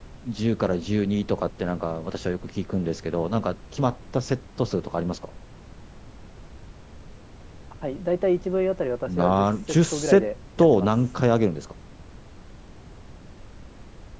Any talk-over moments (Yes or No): Yes